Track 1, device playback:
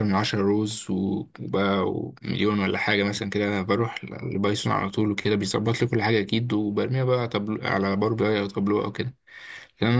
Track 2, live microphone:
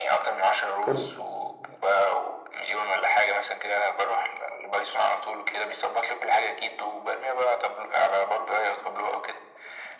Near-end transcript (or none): كمل